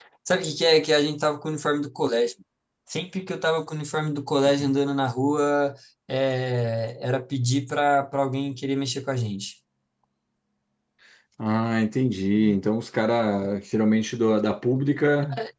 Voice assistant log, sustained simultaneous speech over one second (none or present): none